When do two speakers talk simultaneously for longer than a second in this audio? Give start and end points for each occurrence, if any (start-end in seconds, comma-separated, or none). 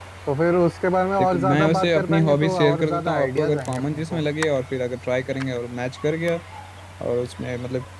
1.2-4.2